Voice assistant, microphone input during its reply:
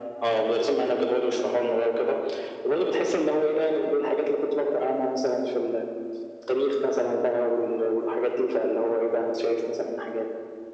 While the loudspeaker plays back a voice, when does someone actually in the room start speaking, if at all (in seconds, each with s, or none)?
none